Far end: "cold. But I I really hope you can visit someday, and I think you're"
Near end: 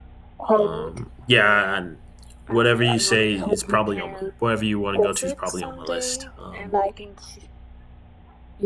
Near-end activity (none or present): present